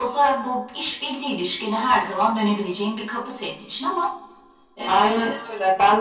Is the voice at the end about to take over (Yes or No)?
Yes